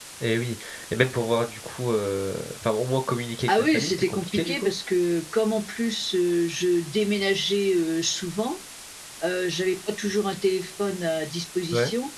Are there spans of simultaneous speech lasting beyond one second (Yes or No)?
Yes